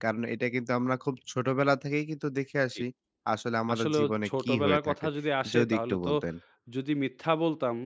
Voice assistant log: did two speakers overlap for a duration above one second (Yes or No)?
Yes